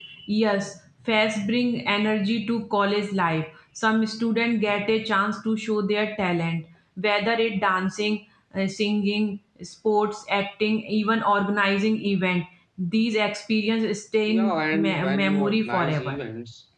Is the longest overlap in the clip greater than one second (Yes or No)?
Yes